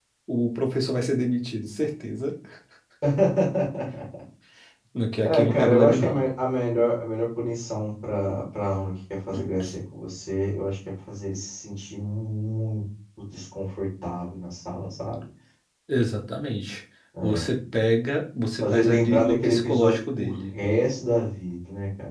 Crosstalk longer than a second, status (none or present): present